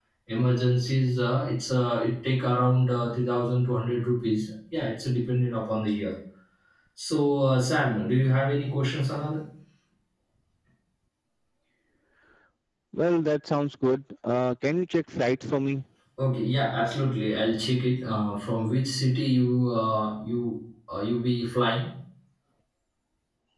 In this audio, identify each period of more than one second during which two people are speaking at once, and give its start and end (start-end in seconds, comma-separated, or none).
none